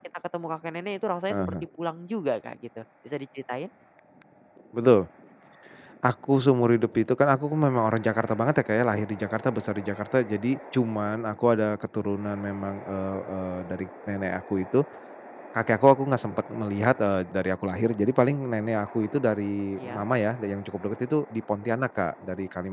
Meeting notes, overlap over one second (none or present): none